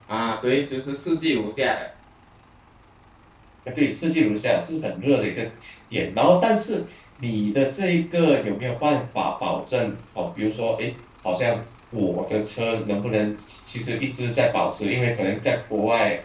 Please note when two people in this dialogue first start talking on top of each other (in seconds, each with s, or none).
none